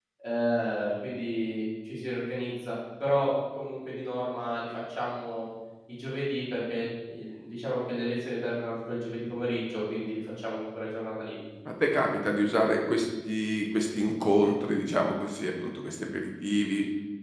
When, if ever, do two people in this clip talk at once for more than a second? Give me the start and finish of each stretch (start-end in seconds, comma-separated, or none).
none